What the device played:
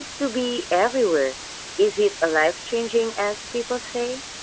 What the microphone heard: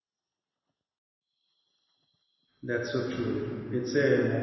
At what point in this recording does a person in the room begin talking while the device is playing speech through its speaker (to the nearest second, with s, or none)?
3 s